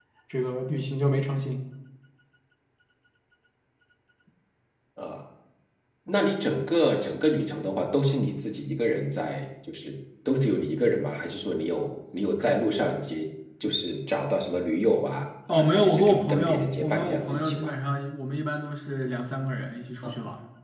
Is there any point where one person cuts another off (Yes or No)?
Yes